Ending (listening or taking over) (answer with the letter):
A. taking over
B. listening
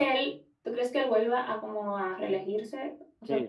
A